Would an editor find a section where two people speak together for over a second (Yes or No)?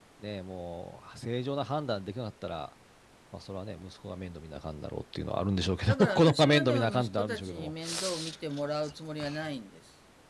Yes